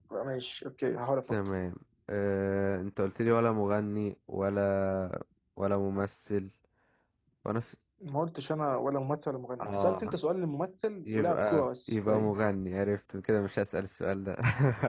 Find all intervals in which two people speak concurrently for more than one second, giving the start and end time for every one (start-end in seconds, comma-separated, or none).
11.1-12.3